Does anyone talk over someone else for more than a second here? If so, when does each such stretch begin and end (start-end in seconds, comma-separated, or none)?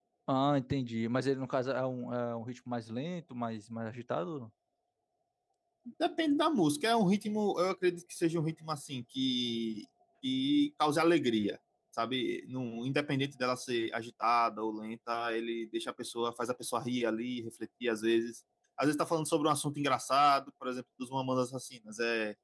none